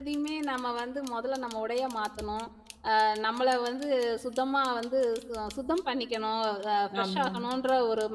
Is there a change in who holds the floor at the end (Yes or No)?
No